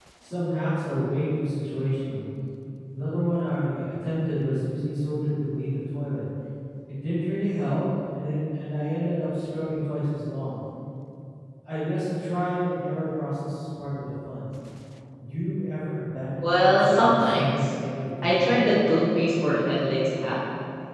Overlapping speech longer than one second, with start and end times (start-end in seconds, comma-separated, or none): 16.4-17.6